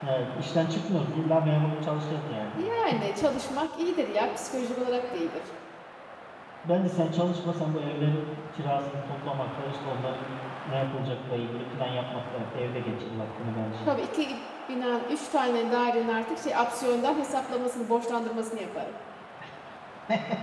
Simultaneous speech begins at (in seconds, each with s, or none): none